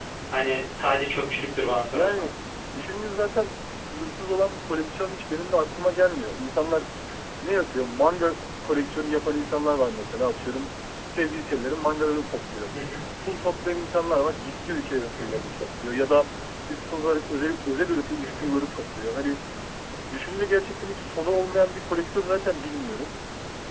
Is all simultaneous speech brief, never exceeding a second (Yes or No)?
Yes